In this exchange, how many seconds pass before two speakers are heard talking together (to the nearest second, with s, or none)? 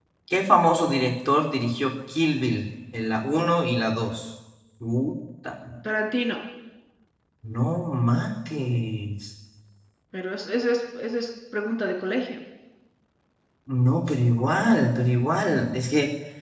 none